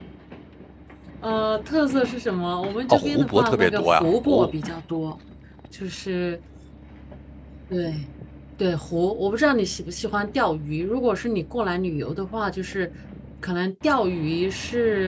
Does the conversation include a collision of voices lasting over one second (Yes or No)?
Yes